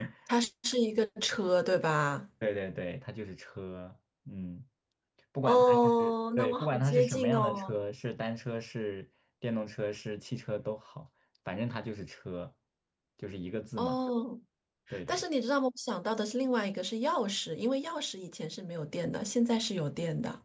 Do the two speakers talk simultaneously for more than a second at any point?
Yes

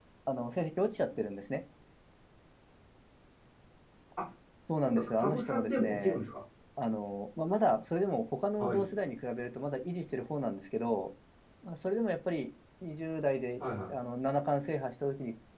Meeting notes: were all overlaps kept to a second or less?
No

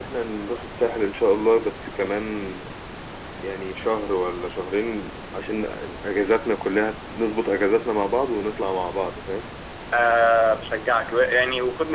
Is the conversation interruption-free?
Yes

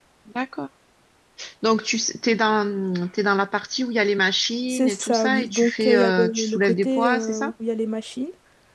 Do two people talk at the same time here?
Yes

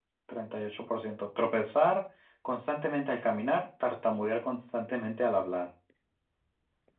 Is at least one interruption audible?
No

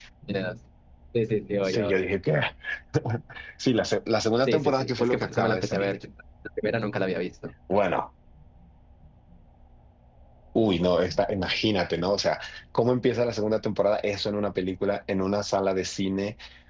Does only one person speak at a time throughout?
No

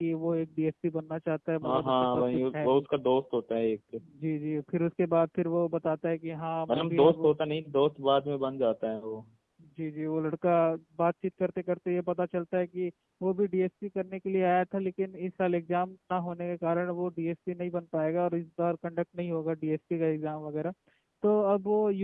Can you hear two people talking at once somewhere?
Yes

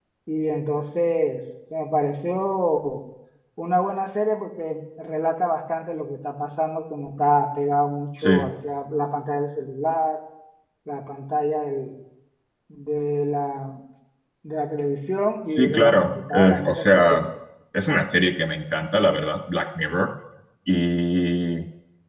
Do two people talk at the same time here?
Yes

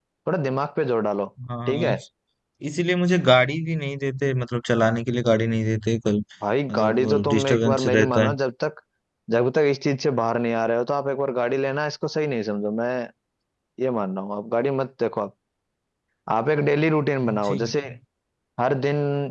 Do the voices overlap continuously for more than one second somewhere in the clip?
Yes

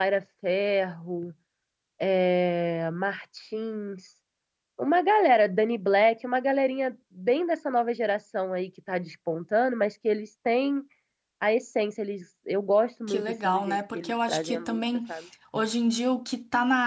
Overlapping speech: Yes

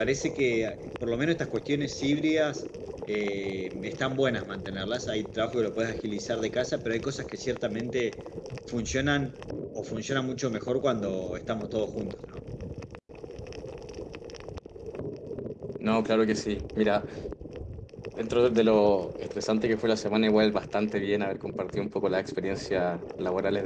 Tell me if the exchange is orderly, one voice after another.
Yes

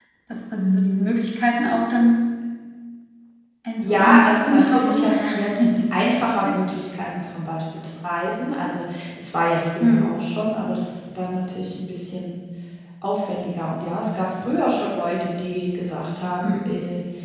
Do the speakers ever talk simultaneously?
Yes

